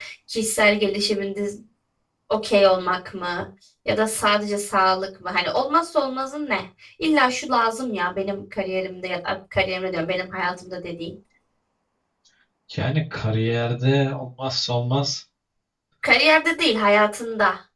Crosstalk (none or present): none